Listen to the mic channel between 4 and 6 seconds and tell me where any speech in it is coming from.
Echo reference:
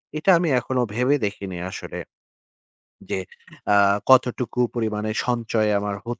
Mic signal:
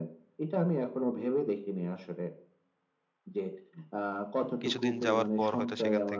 both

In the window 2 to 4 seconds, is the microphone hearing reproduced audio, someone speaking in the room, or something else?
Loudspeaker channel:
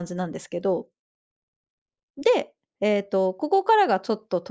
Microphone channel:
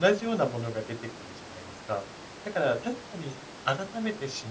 user only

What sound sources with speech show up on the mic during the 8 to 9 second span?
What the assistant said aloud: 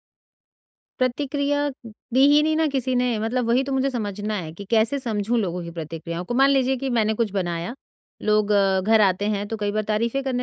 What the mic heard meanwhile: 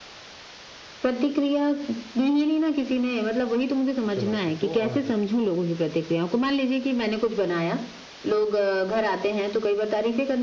echo only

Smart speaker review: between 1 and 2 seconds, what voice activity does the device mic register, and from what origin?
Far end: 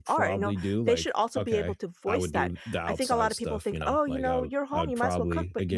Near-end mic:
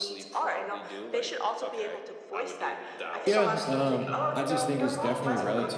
echo only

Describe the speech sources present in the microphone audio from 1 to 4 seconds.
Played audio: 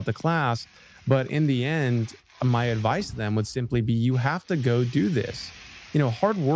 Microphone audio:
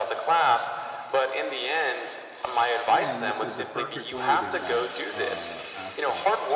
both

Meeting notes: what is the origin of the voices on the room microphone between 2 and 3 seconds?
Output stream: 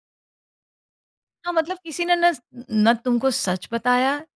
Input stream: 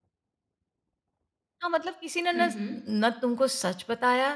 both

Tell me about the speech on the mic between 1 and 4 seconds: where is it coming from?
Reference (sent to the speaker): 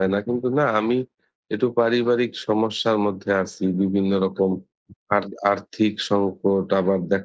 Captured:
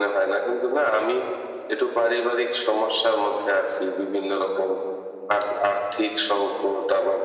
echo only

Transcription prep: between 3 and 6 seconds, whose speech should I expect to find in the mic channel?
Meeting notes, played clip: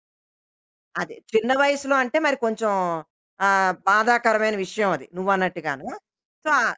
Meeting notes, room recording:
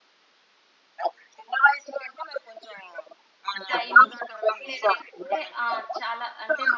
both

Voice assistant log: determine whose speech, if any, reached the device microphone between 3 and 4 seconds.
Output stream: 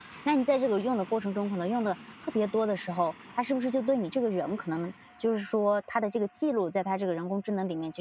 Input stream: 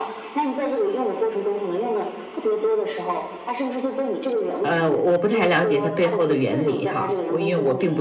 echo only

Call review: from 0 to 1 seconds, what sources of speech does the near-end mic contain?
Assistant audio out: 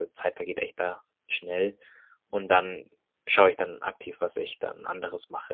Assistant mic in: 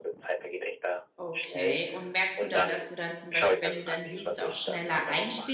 echo only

